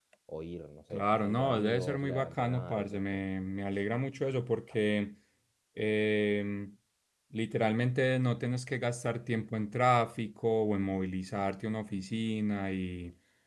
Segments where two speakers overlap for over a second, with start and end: 0.9-3.0

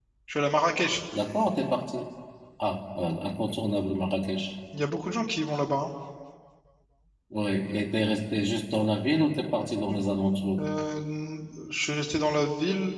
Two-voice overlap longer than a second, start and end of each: none

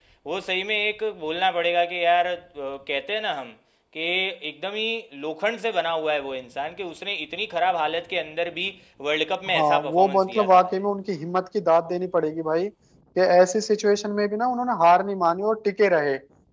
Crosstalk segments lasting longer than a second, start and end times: 9.5-10.8

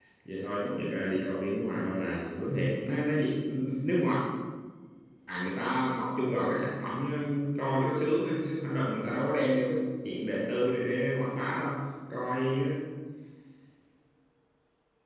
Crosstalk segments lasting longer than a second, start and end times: none

